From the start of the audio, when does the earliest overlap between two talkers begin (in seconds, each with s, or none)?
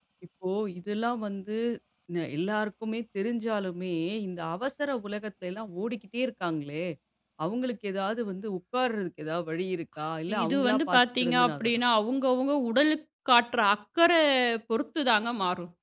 10.3 s